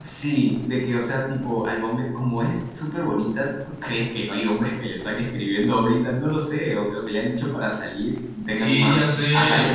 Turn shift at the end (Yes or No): Yes